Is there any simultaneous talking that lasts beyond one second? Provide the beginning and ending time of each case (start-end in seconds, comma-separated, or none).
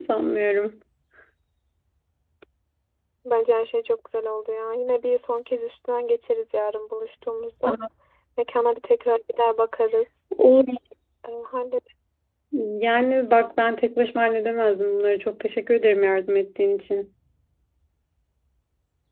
none